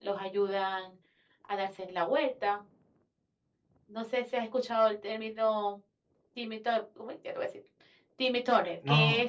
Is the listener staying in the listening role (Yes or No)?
No